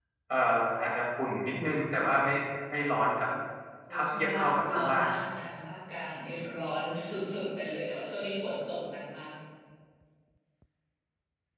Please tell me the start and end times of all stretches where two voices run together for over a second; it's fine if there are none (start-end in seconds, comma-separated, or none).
3.9-5.1